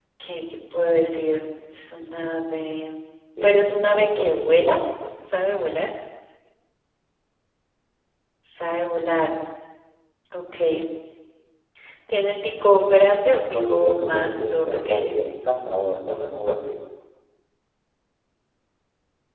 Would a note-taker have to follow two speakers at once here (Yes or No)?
Yes